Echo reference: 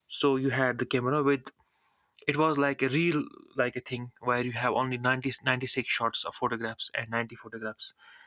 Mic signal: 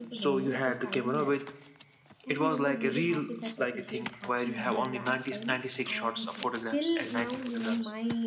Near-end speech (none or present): present